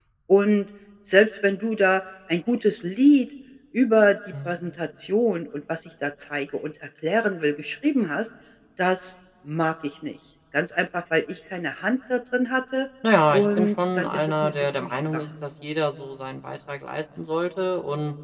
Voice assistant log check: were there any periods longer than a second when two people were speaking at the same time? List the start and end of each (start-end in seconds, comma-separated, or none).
13.3-15.2